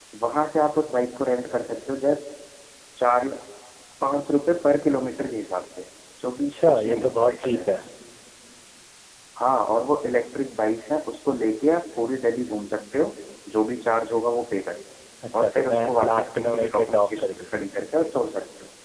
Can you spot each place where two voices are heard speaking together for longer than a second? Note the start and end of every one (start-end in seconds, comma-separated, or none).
6.4-7.6, 15.4-17.5